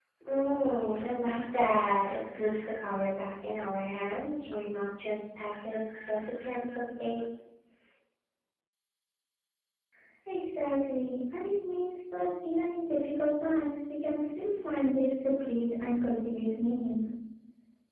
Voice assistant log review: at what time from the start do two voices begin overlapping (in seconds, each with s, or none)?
none